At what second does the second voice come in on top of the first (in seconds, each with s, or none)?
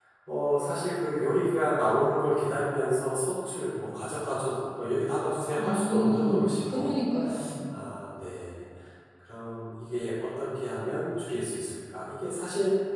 5.6 s